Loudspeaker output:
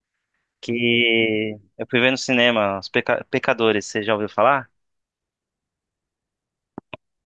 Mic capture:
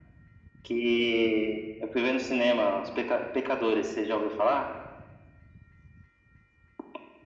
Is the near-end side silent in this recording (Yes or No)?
Yes